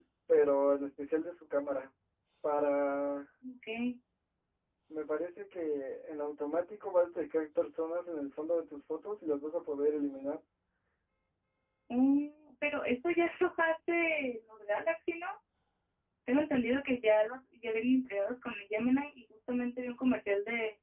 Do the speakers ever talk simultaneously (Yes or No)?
No